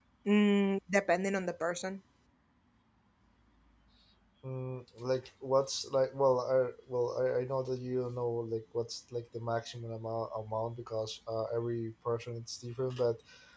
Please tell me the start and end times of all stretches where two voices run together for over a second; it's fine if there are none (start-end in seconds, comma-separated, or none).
none